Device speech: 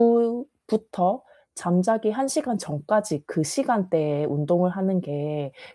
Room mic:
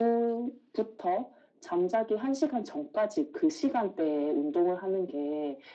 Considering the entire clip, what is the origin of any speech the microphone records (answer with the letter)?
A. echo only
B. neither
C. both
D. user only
A